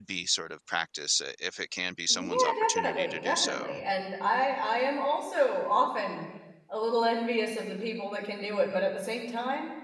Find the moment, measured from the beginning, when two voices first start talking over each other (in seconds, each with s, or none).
2.1 s